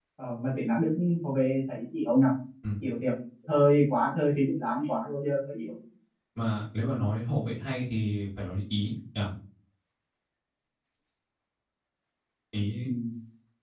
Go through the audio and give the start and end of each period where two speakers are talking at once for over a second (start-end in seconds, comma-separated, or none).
none